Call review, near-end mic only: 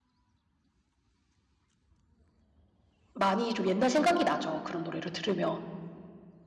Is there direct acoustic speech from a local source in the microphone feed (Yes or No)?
Yes